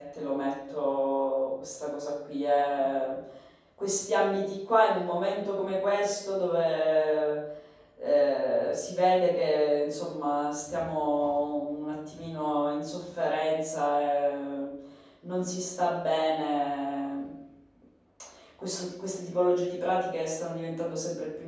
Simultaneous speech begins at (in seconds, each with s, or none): none